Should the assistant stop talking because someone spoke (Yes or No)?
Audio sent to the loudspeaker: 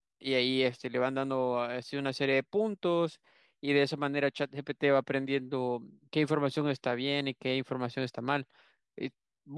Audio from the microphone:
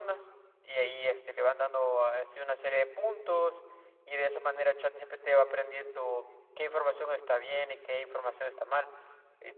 No